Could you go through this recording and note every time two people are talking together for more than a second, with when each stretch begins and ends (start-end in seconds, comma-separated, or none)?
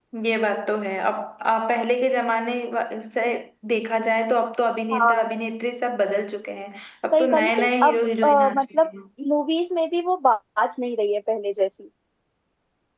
7.1-8.9